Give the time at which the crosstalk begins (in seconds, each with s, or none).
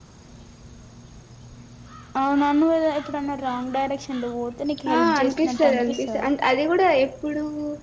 4.9 s